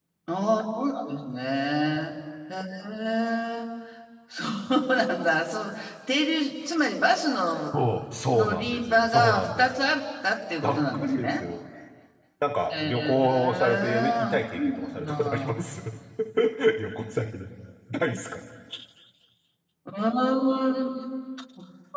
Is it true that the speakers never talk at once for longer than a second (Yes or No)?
No